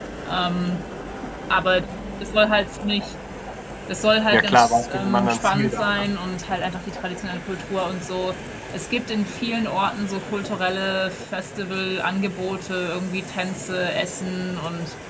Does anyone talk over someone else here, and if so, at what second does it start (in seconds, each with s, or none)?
4.3 s